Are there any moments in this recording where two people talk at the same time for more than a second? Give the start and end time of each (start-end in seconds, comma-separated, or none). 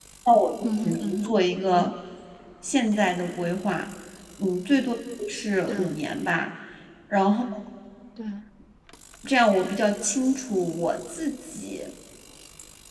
0.6-1.9